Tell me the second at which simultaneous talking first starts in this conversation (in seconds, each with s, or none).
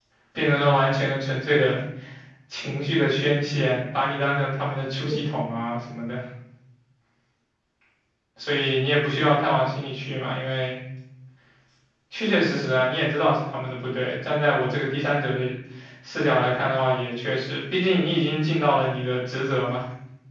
none